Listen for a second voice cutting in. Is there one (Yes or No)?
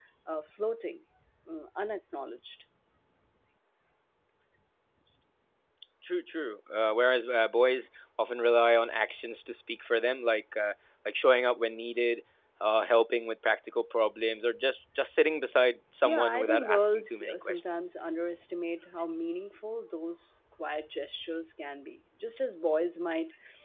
Yes